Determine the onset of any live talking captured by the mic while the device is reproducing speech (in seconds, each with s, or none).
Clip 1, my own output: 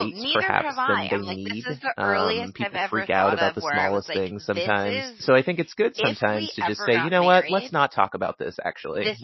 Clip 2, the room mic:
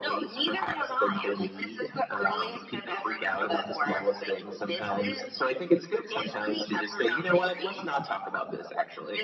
none